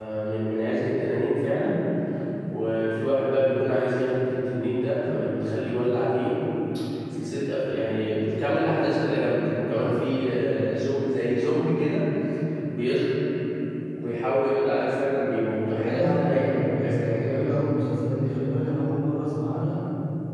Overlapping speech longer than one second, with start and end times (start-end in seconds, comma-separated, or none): 15.7-17.6